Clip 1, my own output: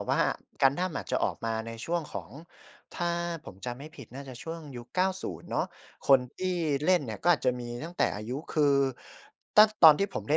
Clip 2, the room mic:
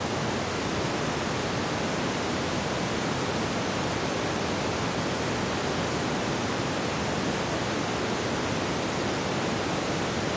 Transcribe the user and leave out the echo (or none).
none